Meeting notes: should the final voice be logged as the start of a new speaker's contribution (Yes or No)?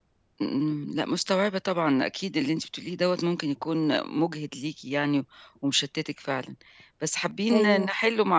No